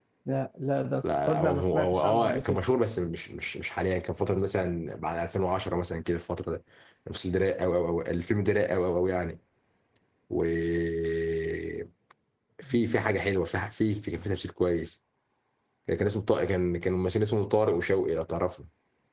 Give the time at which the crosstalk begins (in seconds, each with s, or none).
1.3 s